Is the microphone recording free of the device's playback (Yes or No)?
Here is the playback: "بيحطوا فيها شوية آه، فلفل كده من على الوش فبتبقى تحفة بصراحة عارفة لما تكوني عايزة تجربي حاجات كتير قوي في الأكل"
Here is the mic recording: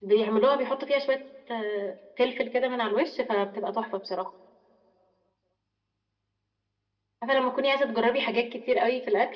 No